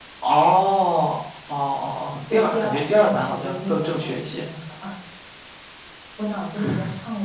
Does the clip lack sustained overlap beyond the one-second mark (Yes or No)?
No